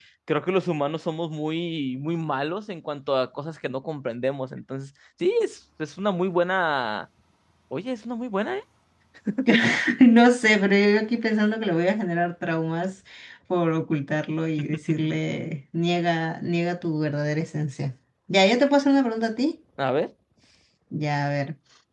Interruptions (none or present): none